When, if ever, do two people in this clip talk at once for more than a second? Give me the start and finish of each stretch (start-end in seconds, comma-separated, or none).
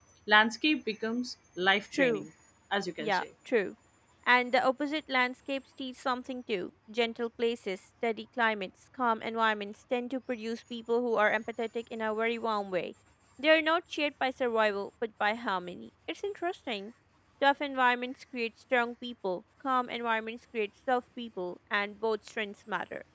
none